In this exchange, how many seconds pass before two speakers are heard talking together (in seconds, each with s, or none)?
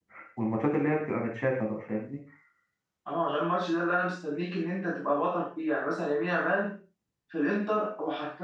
none